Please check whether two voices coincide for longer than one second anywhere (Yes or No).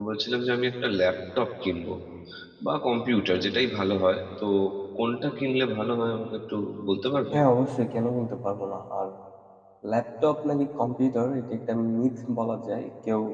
No